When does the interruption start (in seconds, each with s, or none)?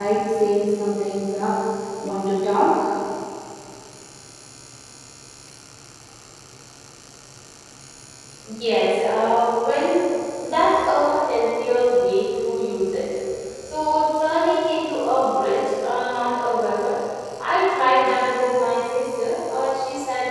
none